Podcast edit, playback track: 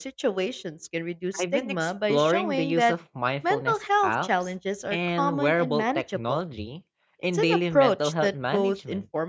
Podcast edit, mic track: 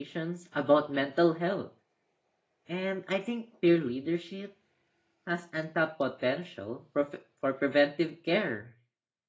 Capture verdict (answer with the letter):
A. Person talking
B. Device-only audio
A